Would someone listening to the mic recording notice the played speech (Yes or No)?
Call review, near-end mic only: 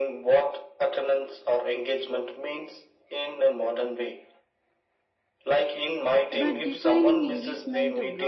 Yes